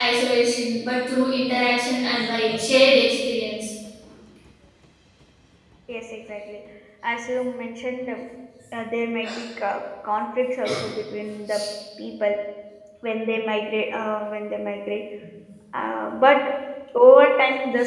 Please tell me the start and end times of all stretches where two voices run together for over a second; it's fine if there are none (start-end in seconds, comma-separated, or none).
none